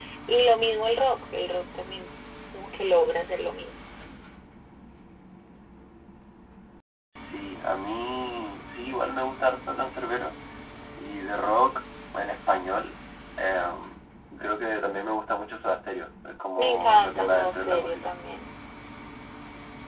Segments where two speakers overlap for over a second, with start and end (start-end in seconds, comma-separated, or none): 16.6-18.1